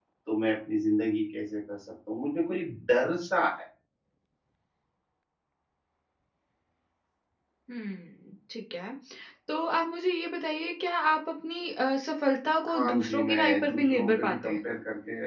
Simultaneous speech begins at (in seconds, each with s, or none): 12.7 s